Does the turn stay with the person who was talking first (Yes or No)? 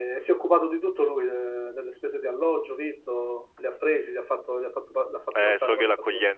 No